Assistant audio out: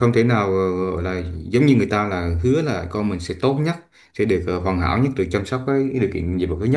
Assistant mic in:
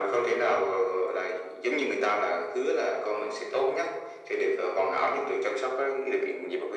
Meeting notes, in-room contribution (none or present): none